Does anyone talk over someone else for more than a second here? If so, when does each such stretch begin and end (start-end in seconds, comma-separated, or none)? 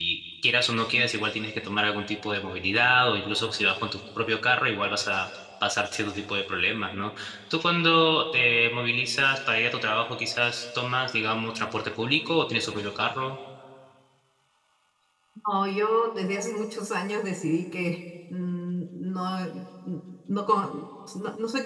none